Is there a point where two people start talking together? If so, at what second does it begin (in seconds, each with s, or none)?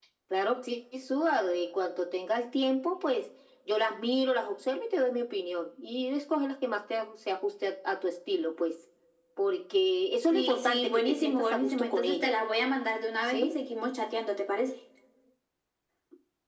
10.3 s